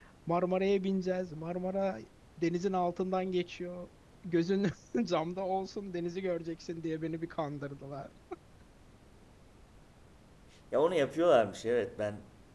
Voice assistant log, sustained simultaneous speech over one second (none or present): none